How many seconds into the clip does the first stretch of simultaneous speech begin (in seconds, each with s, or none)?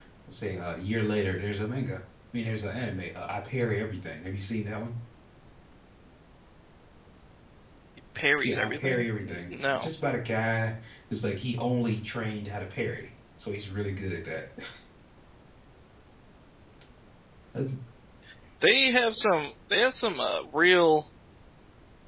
8.4 s